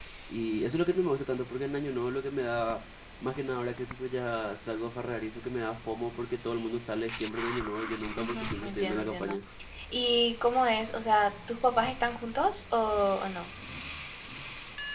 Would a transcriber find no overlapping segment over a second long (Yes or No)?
No